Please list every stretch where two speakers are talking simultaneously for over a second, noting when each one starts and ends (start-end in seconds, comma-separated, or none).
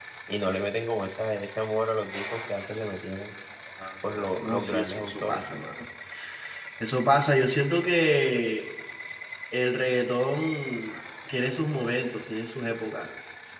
4.1-5.4